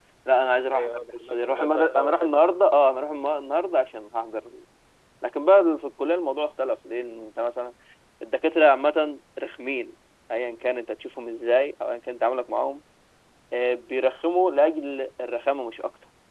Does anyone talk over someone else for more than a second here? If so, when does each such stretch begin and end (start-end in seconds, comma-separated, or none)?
0.7-2.5